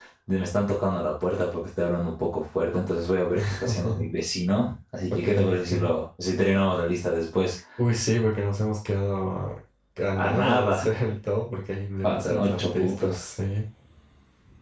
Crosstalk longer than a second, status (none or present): present